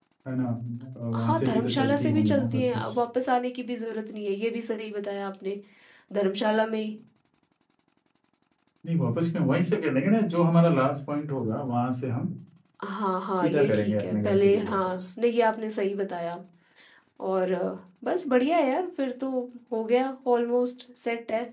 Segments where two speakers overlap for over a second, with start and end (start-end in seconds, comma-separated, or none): 1.1-2.9, 13.3-15.0